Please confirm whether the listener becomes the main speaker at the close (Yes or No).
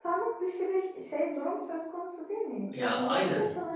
No